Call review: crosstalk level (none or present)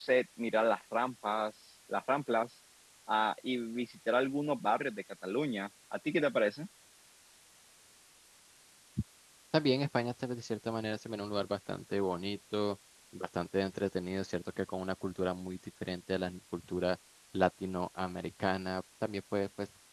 none